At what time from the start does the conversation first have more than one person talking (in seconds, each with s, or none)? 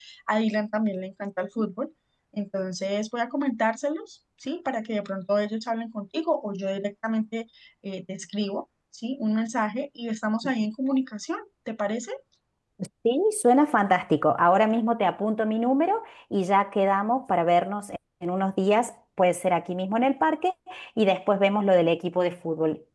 none